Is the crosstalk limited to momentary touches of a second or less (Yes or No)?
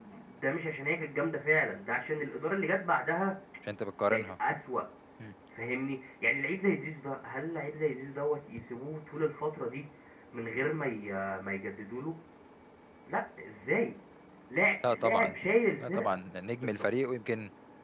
Yes